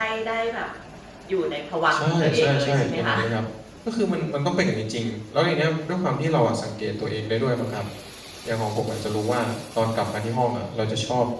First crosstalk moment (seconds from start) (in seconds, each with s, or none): 1.9 s